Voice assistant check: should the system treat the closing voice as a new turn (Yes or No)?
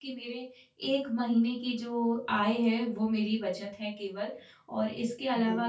No